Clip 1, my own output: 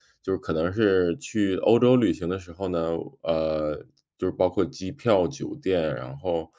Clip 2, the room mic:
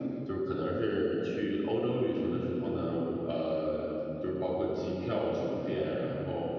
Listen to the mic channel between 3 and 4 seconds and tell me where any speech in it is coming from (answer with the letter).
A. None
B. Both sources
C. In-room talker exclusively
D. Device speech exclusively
D